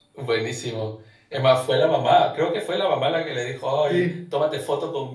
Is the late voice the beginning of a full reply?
No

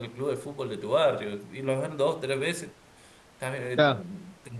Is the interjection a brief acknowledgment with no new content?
Yes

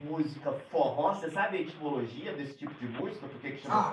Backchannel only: No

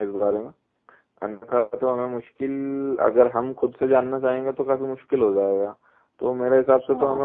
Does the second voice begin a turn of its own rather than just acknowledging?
No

